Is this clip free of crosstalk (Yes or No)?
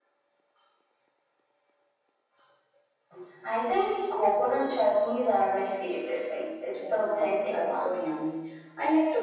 No